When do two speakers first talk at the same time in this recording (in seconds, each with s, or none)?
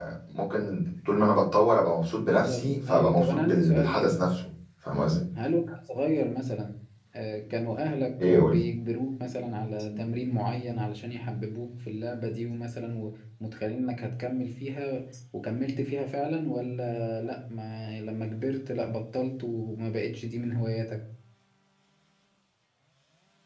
2.2 s